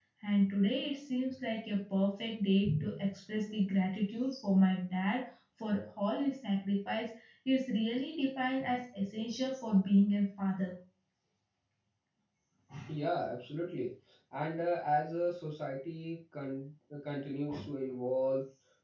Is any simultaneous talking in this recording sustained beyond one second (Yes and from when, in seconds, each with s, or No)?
No